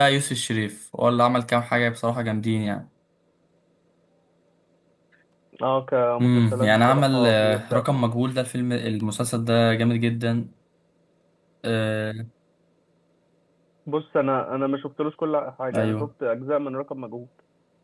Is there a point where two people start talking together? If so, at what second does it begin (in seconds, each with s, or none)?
6.2 s